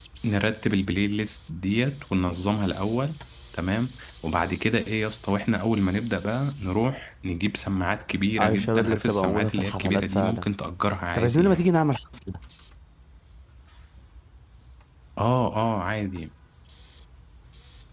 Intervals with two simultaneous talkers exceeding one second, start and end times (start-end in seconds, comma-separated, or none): 8.4-10.4